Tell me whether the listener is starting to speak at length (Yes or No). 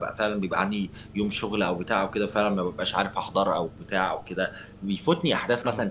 No